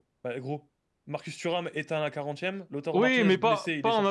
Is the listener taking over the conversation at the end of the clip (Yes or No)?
Yes